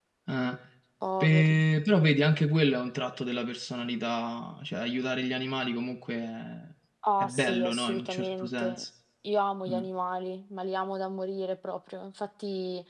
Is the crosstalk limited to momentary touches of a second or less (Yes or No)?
No